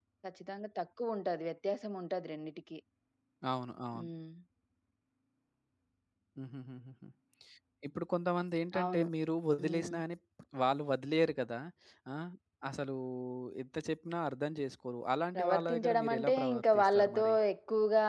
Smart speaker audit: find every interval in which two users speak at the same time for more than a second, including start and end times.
15.3-17.3

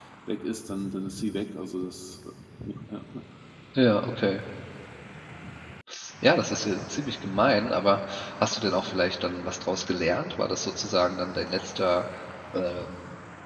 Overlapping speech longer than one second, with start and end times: none

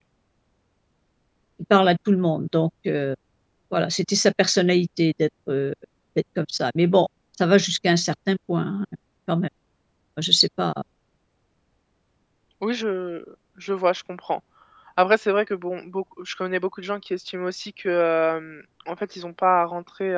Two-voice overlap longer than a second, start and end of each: none

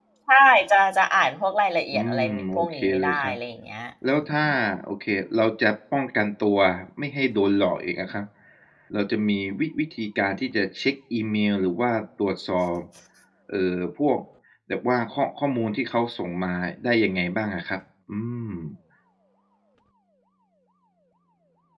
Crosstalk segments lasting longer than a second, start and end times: 1.9-3.4

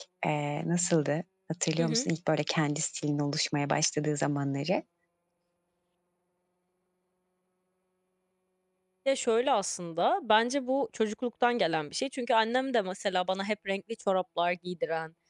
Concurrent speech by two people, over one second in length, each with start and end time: none

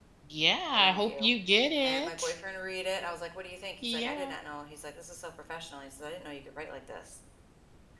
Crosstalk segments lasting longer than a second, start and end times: none

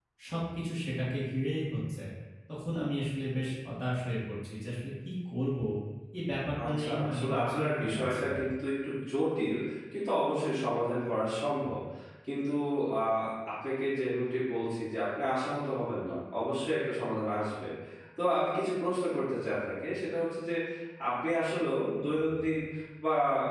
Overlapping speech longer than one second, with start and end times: 6.7-8.4

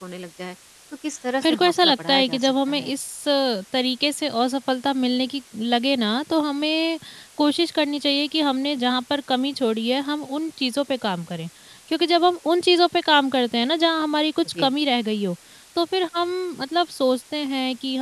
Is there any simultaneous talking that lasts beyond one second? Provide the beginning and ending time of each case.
1.4-2.9

